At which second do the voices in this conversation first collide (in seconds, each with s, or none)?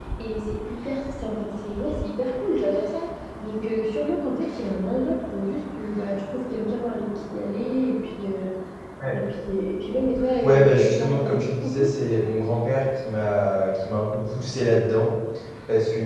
10.4 s